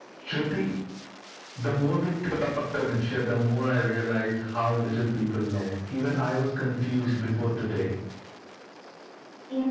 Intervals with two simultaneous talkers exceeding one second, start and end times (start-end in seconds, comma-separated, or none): none